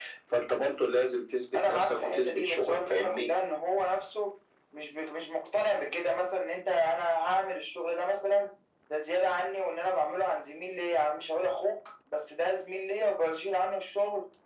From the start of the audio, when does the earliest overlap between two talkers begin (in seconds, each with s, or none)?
1.5 s